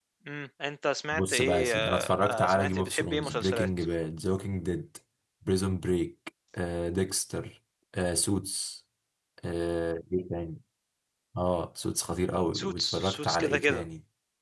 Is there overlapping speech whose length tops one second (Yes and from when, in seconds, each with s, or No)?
Yes, from 1.1 s